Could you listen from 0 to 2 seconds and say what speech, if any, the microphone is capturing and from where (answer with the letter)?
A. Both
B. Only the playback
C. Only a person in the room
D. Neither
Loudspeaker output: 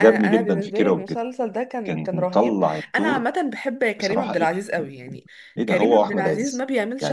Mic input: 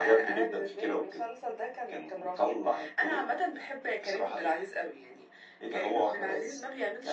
B